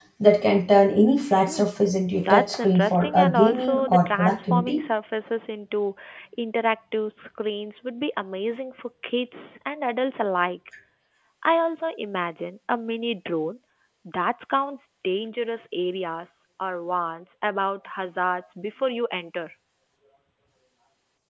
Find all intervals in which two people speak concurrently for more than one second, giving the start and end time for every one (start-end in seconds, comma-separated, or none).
2.2-4.8